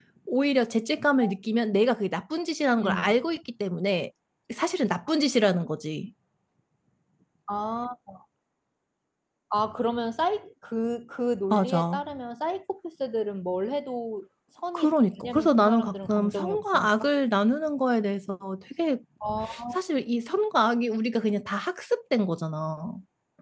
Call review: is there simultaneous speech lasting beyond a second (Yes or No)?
Yes